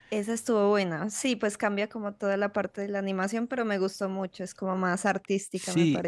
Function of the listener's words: taking over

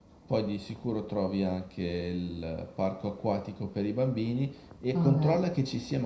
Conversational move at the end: listening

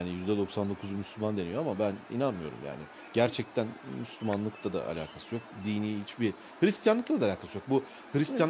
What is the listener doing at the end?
listening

